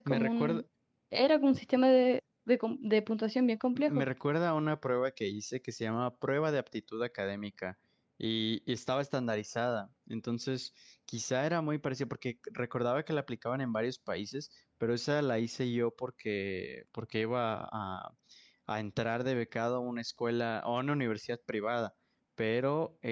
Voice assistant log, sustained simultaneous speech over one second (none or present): none